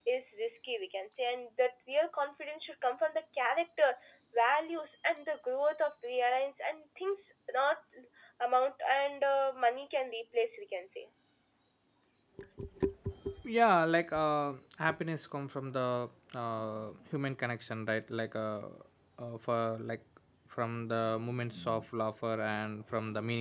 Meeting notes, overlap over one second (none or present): none